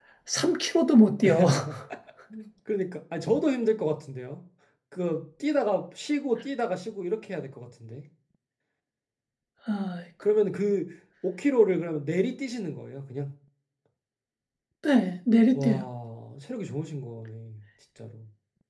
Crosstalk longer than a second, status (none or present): none